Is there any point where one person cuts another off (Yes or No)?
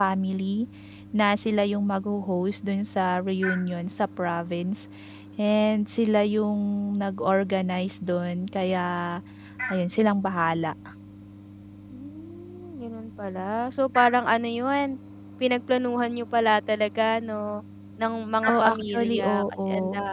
Yes